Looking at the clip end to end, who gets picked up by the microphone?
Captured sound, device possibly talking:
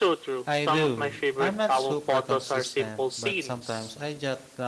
both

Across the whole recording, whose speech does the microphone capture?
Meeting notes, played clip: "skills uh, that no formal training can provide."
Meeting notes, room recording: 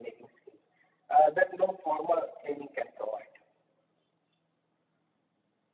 echo only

